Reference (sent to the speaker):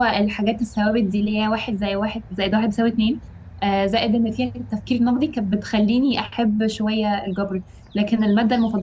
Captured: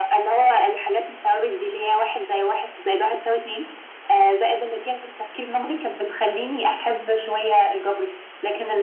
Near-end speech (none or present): none